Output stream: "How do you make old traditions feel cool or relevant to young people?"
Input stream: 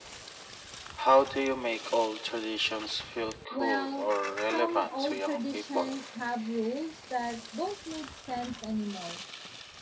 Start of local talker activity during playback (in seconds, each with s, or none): 3.5 s